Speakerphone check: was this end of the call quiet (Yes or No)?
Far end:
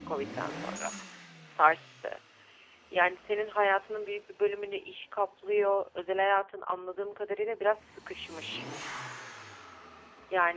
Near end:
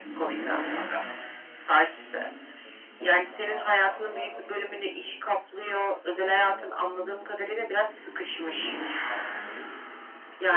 No